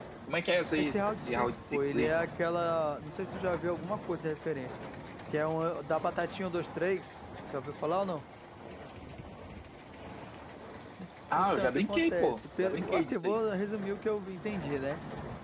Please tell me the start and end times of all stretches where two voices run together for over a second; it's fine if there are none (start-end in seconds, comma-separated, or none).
0.8-2.1, 11.3-13.4